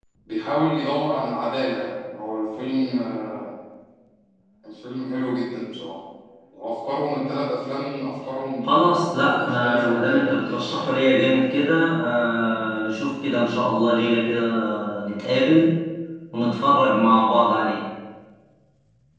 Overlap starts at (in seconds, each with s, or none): 8.6 s